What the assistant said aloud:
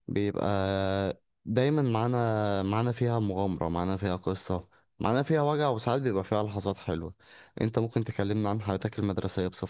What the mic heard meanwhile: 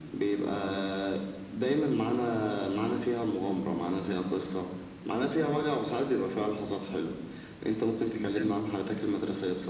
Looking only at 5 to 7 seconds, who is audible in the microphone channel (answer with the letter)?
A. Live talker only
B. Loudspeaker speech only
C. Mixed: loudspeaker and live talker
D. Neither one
B